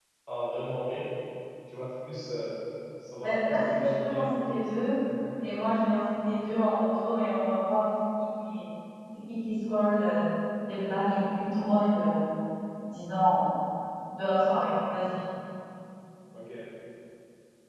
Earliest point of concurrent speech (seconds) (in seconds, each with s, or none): 3.2 s